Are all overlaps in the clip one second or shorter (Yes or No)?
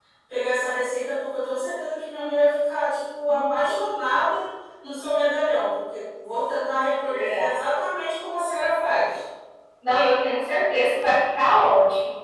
Yes